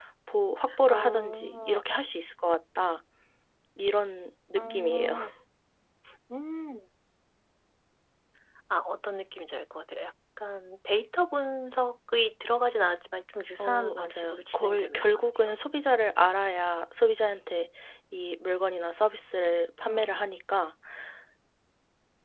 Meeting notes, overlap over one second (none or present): present